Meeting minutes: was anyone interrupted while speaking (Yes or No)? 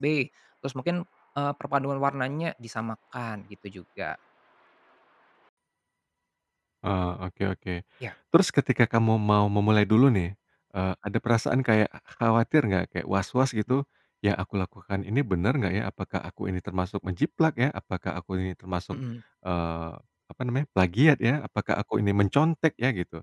No